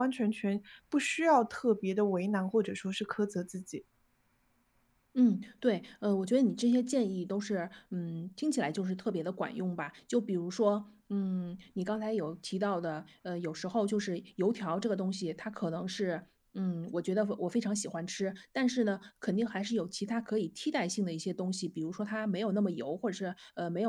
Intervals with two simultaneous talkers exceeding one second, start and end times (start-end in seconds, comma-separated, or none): none